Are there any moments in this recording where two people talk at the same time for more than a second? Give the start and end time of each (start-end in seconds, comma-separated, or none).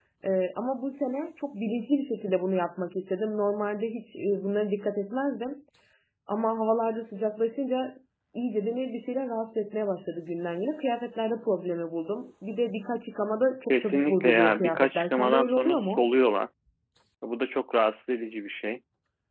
13.7-16.1